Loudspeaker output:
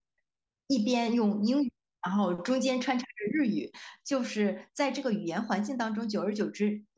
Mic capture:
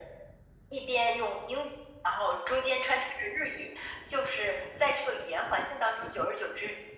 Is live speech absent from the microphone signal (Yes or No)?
Yes